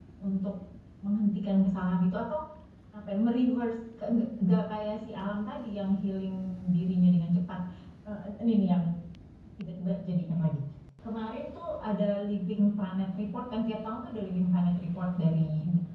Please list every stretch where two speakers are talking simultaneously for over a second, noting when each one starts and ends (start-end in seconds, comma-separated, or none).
none